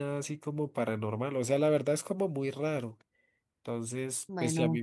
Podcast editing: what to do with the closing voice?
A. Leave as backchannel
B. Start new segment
A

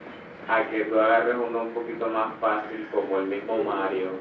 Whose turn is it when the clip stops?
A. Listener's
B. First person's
A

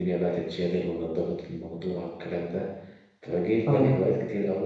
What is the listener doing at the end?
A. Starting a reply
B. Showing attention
B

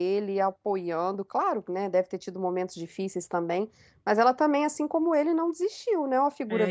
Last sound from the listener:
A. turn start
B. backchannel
A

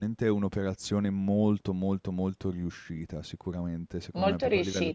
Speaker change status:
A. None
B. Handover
A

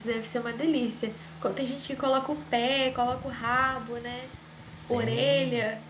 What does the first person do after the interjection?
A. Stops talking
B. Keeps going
A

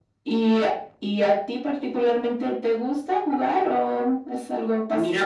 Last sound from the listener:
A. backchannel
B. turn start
B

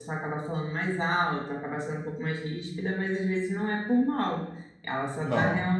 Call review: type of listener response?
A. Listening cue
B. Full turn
A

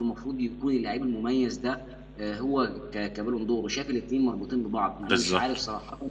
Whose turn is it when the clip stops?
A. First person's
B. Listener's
A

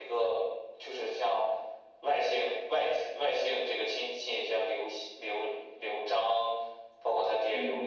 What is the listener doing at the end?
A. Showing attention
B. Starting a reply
A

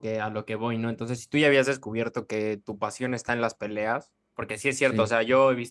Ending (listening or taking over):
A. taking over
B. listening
B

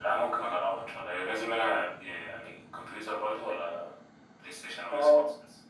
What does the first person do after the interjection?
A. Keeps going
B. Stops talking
B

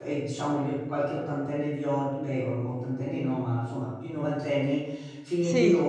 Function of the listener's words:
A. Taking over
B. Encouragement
B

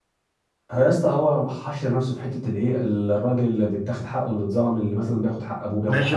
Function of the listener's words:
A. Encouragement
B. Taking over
B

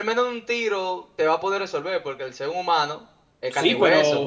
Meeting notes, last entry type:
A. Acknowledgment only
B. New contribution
B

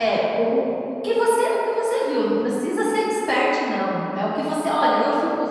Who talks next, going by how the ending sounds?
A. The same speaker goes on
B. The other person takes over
A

